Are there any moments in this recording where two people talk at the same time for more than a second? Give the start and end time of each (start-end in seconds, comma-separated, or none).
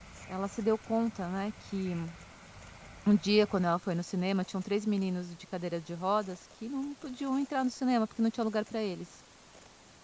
none